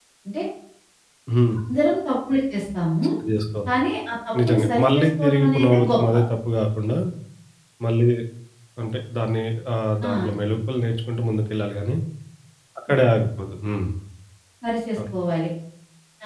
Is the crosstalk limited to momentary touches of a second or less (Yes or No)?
No